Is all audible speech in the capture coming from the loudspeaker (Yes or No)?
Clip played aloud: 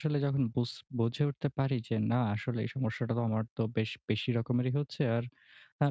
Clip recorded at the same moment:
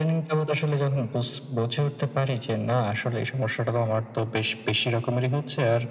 Yes